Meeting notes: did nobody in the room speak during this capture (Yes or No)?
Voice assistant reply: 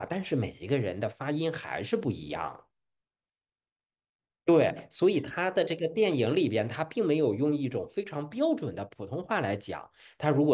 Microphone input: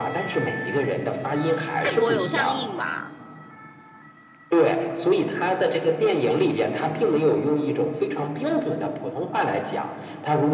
No